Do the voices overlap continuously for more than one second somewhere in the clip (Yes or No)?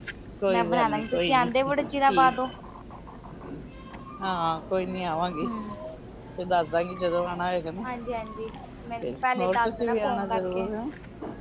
Yes